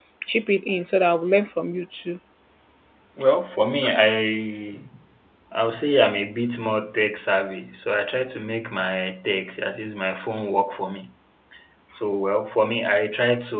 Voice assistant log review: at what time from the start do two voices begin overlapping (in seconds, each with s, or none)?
none